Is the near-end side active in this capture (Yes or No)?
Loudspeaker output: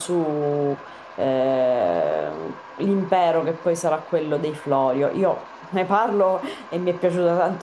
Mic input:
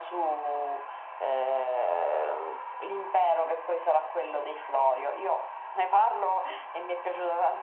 No